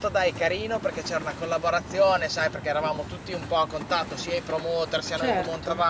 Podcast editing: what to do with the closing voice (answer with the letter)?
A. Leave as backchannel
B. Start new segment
A